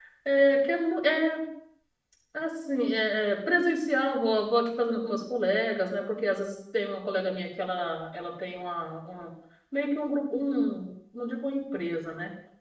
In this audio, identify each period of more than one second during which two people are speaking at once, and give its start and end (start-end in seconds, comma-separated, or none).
none